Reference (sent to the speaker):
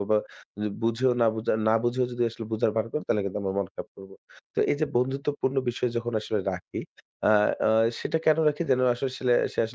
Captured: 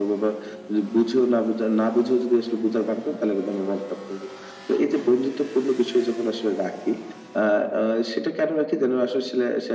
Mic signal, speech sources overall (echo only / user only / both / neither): echo only